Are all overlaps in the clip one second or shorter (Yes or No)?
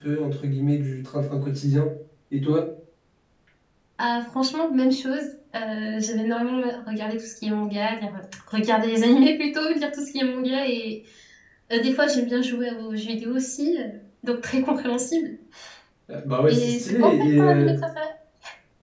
No